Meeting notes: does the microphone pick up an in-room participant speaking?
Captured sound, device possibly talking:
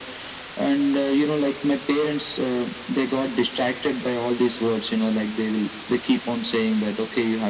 No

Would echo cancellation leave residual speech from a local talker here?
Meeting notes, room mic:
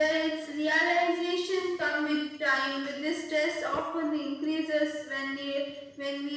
No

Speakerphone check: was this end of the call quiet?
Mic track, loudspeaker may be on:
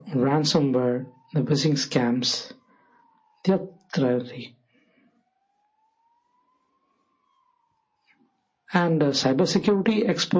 Yes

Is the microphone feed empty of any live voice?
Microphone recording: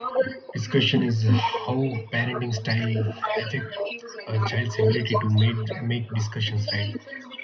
No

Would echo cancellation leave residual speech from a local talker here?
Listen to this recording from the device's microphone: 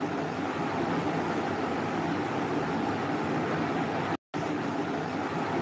No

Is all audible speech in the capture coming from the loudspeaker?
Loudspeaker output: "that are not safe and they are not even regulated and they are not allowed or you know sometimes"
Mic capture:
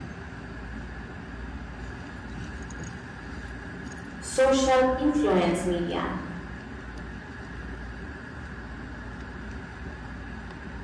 No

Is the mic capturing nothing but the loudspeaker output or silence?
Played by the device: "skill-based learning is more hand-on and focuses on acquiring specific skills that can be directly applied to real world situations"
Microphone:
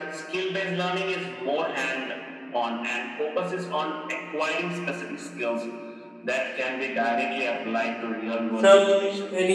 No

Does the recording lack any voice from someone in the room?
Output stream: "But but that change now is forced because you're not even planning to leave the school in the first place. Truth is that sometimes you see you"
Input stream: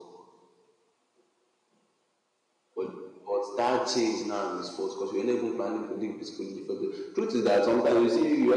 Yes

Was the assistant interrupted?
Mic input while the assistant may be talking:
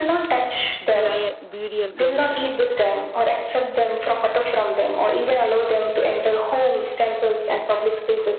Yes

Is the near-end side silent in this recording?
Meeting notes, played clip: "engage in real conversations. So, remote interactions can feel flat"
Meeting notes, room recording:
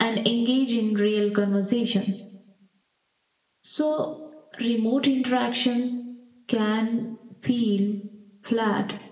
Yes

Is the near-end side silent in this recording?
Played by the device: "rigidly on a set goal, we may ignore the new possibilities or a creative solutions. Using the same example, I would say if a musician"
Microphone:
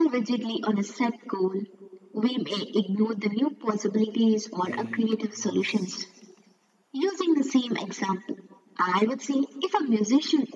No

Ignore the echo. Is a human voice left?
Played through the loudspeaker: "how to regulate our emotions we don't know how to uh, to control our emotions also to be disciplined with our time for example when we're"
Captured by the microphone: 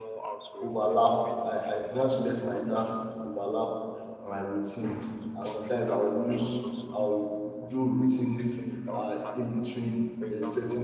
Yes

